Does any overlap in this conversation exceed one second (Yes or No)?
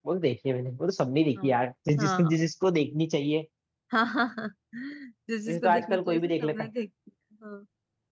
Yes